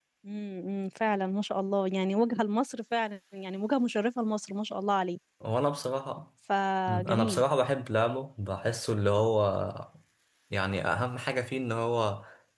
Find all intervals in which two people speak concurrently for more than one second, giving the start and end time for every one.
none

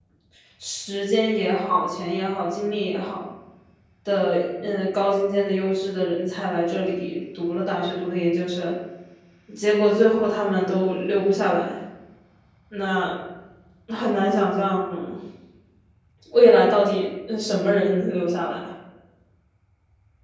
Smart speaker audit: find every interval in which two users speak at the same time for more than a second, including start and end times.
none

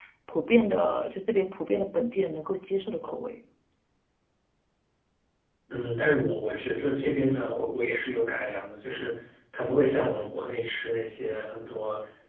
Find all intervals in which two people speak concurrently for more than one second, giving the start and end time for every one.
none

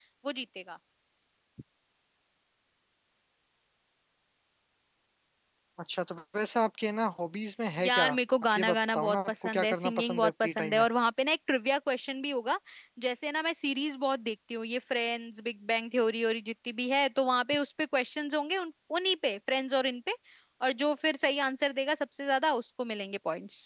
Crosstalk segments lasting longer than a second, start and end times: 8.5-10.9

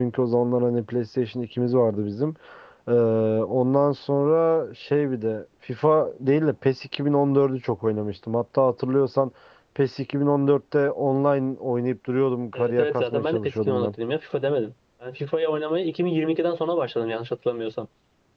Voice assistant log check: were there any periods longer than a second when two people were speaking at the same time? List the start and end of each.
12.5-13.9

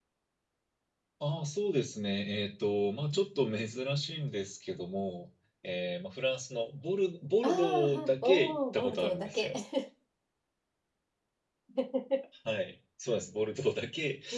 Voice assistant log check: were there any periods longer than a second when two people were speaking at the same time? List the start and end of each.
7.4-9.5

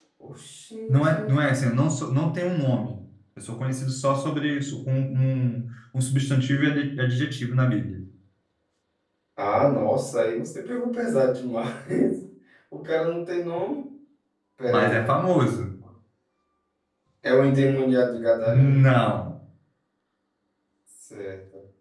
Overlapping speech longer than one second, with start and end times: none

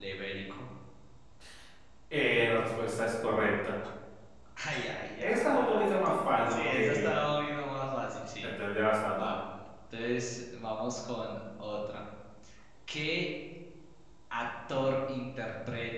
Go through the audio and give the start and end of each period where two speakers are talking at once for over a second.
5.2-7.1

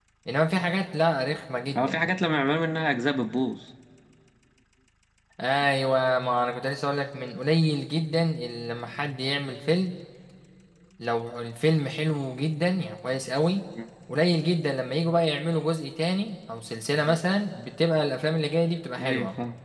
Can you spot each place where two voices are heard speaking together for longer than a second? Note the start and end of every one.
none

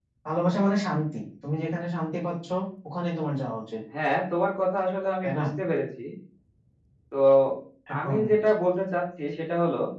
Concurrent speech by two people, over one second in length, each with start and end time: none

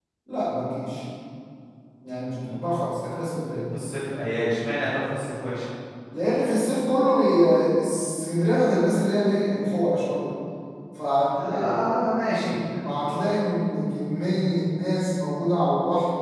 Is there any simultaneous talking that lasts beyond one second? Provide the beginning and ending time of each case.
none

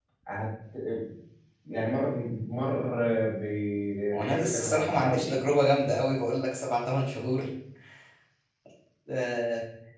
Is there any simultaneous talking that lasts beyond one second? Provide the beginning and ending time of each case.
4.1-5.3

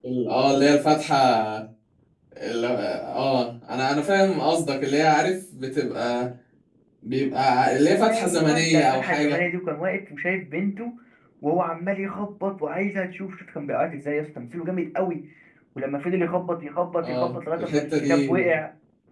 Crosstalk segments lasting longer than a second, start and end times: 8.1-9.4, 17.0-18.4

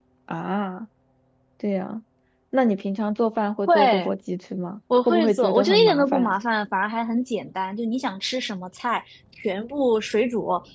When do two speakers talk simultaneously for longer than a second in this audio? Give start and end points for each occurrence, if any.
5.1-6.3

